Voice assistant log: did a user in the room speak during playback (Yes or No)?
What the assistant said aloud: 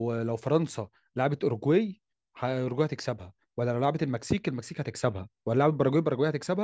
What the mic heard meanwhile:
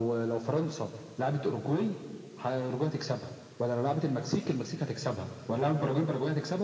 No